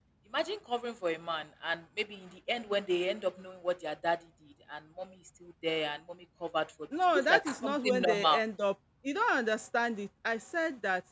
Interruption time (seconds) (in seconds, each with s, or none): 6.9 s